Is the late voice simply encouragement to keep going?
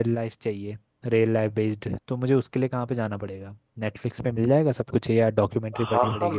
No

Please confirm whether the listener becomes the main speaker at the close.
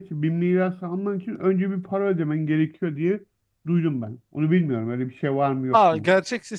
Yes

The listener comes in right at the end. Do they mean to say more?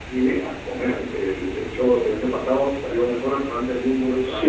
Yes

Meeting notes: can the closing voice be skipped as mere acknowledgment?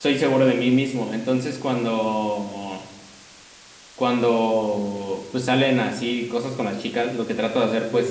Yes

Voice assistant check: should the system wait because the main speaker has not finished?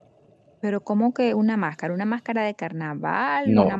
No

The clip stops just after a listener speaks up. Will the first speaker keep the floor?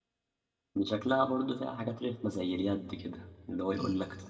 Yes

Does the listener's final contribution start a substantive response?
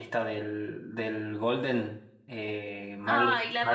Yes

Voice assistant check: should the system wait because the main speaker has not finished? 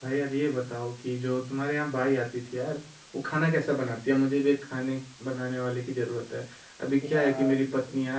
Yes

